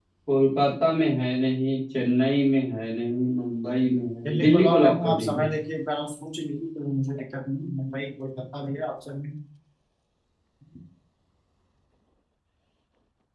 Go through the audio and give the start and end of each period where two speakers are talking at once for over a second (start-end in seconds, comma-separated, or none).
4.3-5.5